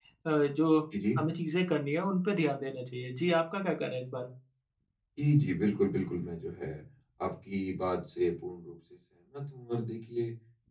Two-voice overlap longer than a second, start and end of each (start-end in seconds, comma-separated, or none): none